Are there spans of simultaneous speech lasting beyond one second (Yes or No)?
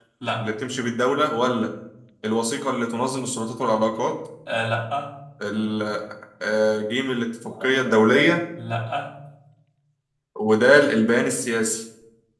No